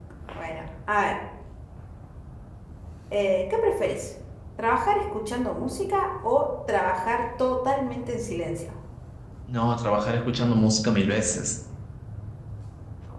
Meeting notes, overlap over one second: none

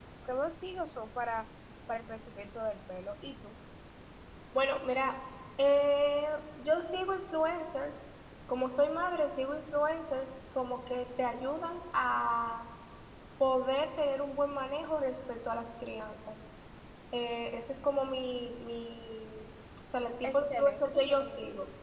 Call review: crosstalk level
present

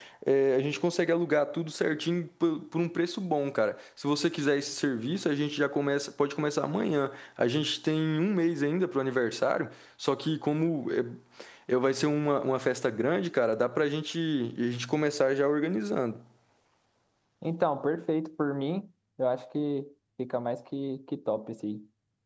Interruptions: none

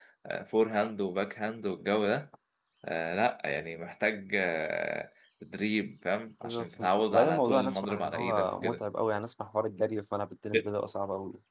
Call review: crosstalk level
present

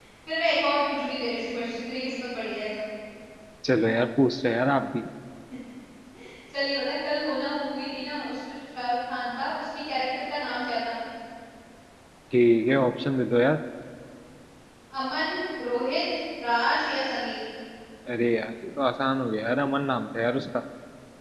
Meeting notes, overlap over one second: none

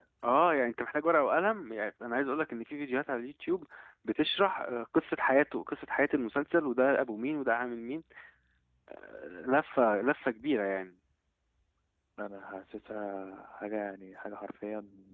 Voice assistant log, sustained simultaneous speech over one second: none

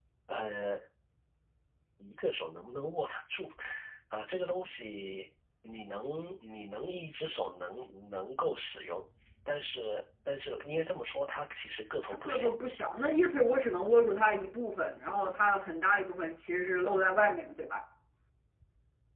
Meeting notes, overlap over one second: none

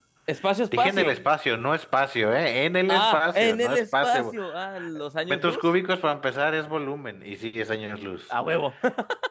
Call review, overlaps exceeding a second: present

